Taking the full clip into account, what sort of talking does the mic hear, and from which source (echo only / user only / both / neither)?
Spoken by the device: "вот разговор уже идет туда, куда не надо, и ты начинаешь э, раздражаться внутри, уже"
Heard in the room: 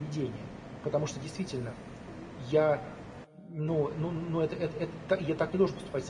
user only